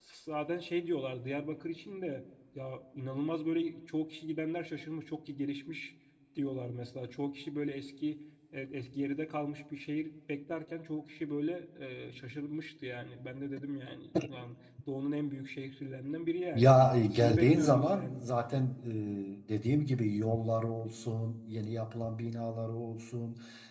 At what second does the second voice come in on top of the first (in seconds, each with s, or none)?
16.5 s